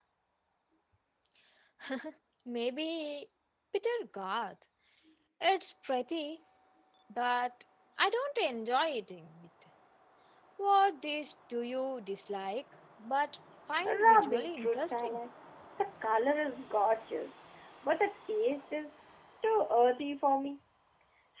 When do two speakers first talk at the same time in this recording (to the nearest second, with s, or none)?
14 s